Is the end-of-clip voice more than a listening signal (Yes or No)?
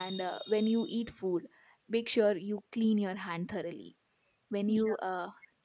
No